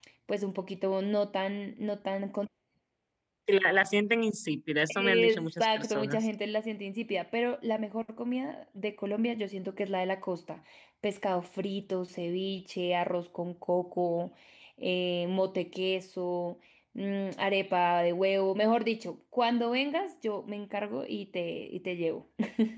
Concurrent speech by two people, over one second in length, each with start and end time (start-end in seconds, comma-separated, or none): 4.9-6.3